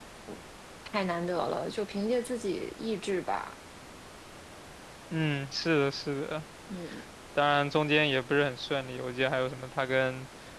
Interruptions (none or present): none